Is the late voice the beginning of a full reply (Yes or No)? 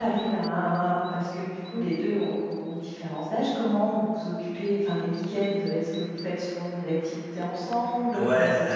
Yes